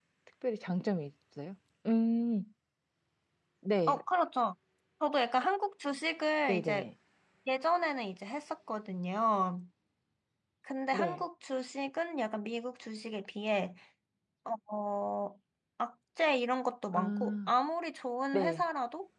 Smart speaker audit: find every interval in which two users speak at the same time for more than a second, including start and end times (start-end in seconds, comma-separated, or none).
none